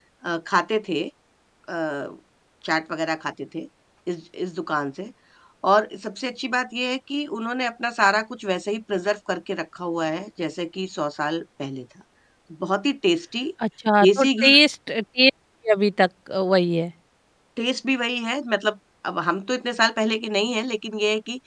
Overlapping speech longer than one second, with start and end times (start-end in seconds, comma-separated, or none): none